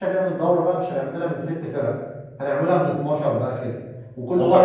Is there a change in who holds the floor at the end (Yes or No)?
No